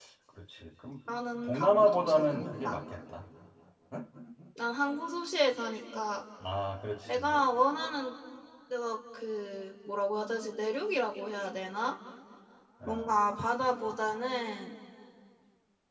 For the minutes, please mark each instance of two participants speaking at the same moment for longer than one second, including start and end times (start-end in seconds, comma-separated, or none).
1.4-2.8